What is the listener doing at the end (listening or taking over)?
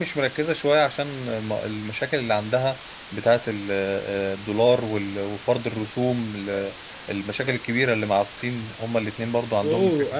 taking over